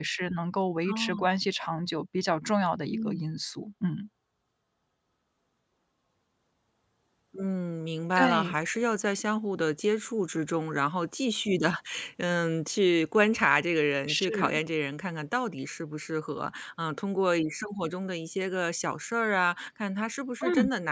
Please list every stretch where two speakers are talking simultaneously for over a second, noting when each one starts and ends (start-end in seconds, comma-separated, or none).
none